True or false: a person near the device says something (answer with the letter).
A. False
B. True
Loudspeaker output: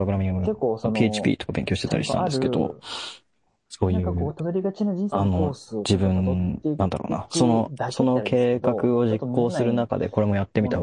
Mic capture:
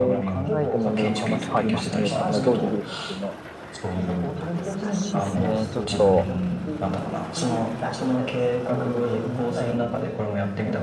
B